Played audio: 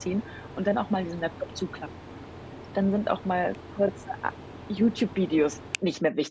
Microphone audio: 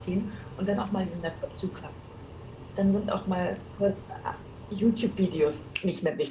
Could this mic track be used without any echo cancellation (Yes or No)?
No